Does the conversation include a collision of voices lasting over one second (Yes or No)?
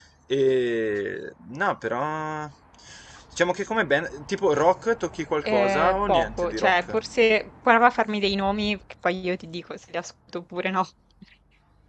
Yes